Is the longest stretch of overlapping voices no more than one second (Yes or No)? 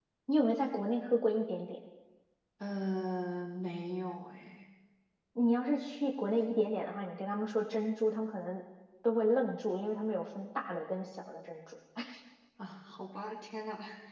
Yes